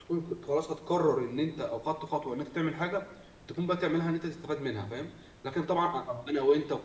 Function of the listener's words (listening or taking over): listening